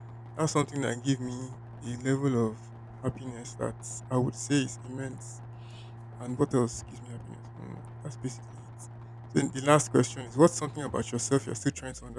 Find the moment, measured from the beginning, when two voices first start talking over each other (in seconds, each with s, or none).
none